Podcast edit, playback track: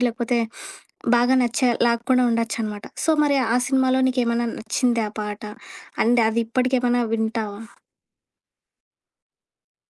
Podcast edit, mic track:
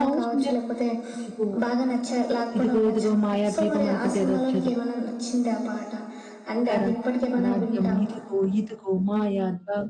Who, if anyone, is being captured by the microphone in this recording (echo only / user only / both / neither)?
both